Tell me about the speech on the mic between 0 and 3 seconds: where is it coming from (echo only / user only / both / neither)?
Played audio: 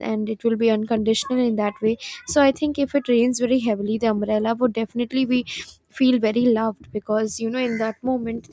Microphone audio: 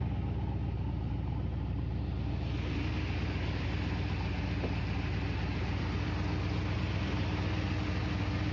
neither